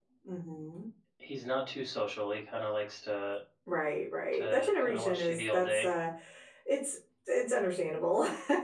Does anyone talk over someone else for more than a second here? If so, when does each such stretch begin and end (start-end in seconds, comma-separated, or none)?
4.3-5.9